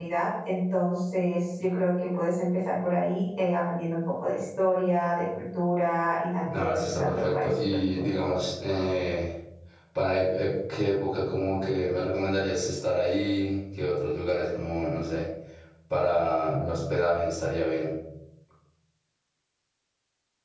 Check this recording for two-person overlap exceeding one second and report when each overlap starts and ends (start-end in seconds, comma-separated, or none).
6.4-8.1